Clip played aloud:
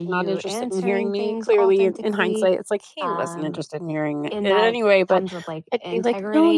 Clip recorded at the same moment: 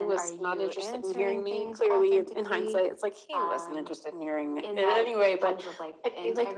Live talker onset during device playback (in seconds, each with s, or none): none